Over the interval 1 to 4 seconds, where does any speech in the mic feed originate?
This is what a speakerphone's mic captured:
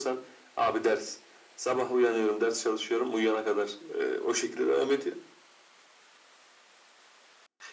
echo only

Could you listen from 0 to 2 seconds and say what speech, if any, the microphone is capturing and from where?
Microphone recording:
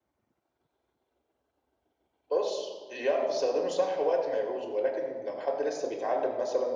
neither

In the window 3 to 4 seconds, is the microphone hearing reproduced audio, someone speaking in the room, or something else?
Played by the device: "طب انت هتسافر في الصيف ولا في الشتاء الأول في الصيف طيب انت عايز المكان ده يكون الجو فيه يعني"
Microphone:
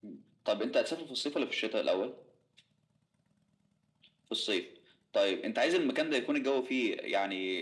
neither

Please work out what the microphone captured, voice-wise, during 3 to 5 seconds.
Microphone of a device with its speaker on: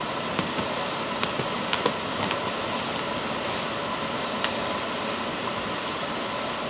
neither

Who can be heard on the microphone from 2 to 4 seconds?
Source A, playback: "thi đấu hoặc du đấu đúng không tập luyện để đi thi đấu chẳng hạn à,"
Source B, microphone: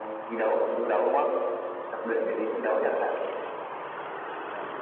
echo only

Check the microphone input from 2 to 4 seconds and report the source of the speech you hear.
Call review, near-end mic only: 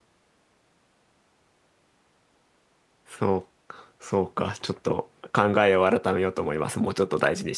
user only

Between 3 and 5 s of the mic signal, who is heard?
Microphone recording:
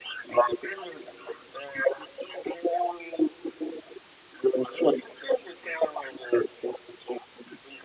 echo only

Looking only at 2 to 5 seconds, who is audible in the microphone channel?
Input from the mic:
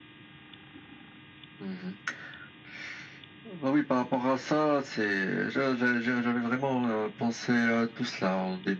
echo only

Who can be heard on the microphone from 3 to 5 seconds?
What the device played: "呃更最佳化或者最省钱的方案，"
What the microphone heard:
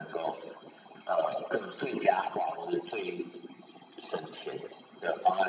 echo only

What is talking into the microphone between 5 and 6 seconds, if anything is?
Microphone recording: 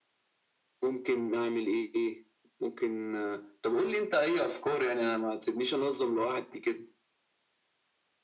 echo only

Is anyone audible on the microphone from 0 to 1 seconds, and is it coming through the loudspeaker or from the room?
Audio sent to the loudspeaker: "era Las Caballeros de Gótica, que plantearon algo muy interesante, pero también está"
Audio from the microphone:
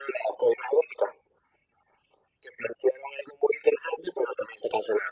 echo only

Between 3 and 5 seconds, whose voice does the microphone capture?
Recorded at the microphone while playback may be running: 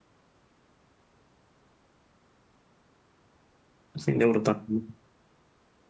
user only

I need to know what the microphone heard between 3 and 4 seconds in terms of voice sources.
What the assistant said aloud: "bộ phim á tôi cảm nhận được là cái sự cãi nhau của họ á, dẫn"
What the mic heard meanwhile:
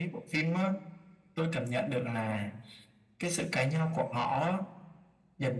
echo only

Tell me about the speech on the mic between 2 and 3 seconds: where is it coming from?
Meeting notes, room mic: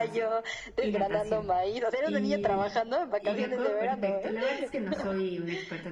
both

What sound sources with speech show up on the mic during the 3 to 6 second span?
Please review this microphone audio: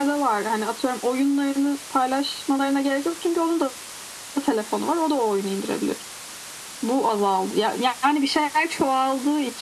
echo only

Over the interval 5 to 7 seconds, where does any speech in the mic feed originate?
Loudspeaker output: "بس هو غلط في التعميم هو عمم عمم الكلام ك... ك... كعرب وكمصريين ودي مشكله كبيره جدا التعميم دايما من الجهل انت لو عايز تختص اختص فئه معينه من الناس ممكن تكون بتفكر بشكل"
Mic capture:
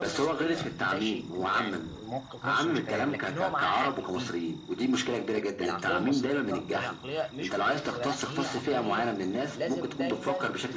both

